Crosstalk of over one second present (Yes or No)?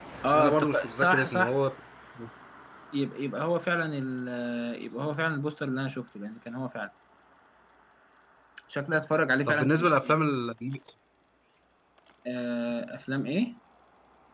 Yes